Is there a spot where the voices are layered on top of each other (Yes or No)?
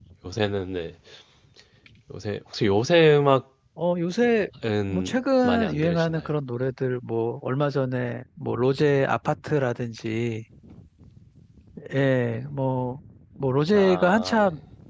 Yes